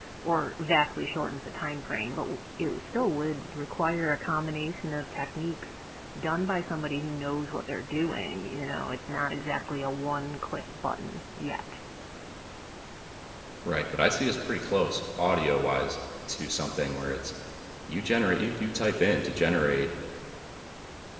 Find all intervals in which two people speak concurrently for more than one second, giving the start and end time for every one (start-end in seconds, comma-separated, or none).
none